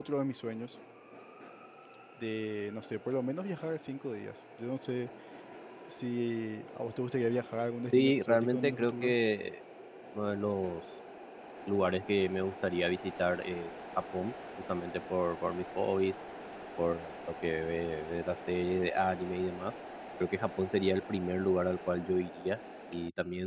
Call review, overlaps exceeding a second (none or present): present